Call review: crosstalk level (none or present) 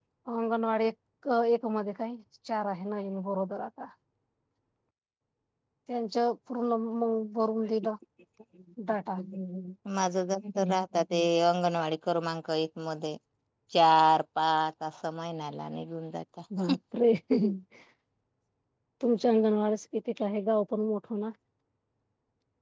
none